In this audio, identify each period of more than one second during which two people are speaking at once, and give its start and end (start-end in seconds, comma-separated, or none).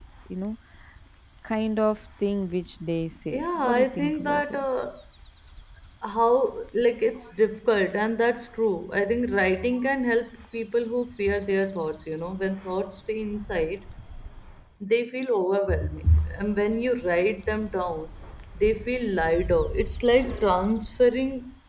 3.3-4.7